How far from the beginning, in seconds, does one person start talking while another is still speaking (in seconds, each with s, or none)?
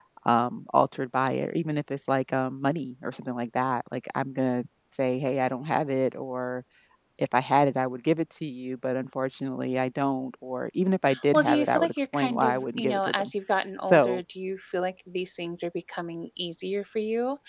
11.3 s